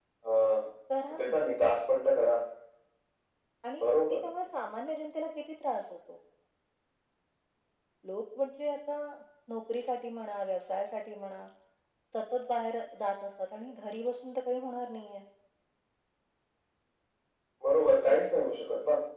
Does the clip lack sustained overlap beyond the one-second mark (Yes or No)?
Yes